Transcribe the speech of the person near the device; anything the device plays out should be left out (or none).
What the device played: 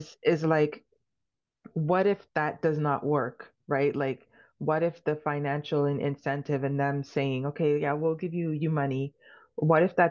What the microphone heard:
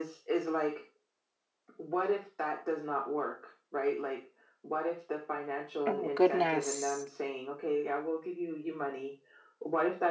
Oh goodness.